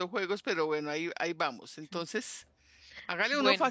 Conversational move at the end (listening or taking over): listening